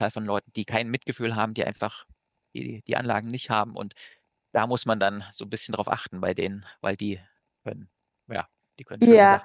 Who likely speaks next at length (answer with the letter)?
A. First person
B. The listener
B